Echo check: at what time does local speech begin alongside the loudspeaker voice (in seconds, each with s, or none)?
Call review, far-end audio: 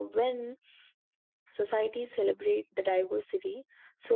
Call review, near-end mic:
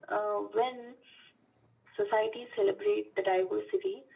none